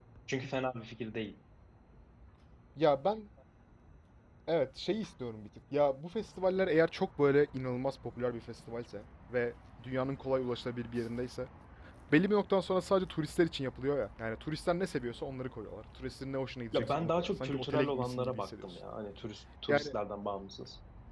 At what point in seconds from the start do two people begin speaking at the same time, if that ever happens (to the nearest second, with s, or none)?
17 s